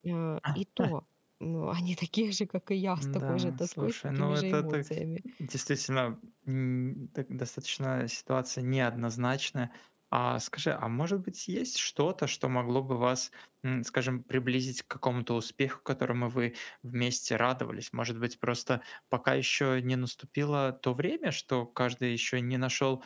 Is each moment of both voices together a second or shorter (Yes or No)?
No